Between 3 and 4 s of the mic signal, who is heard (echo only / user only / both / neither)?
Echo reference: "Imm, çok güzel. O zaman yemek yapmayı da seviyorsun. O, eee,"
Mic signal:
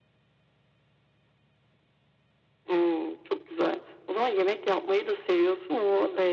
echo only